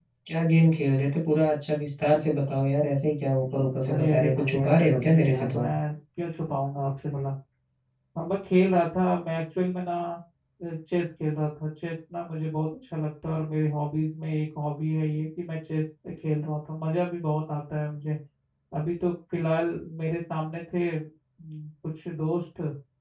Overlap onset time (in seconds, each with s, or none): 3.9 s